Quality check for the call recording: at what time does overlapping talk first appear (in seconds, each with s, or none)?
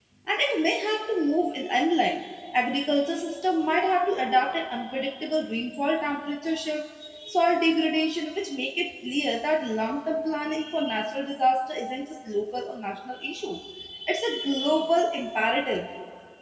none